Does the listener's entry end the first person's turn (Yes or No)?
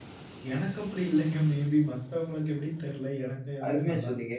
Yes